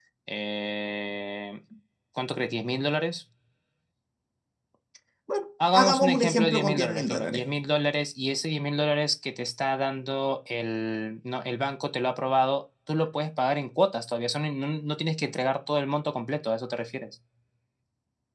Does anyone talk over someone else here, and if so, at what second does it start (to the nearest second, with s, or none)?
6 s